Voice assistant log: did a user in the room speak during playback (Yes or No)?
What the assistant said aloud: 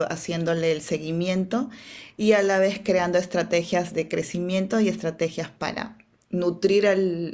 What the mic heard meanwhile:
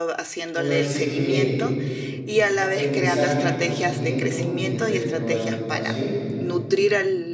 Yes